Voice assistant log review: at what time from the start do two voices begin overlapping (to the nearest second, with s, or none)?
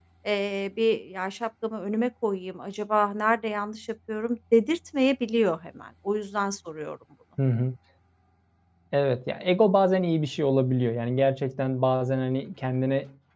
none